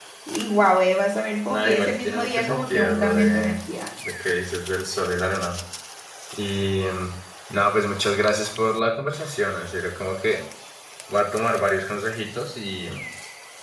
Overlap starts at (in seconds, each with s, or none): 1.5 s